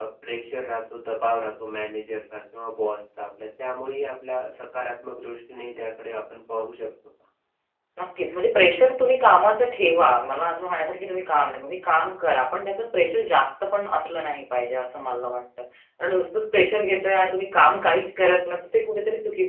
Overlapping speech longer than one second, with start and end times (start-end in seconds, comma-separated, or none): none